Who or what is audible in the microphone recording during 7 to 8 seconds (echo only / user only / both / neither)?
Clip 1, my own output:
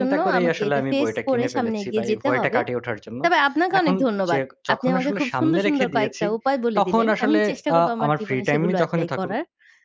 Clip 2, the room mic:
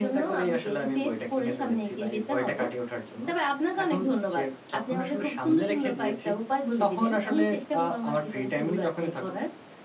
echo only